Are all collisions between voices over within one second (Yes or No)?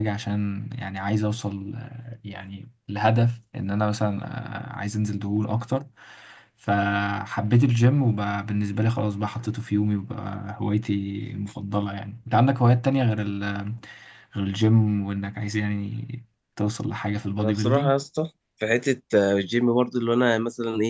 Yes